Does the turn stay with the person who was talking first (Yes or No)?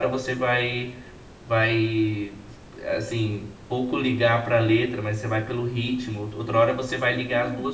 Yes